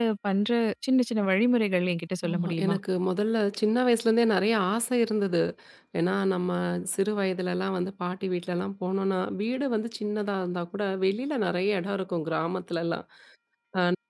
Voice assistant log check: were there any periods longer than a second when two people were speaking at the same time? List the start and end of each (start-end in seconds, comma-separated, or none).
none